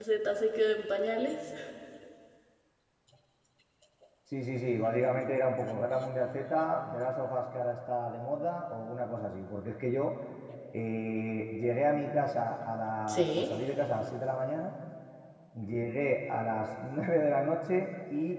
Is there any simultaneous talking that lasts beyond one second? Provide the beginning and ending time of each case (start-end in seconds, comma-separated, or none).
none